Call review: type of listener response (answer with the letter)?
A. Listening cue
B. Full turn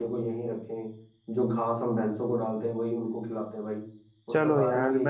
B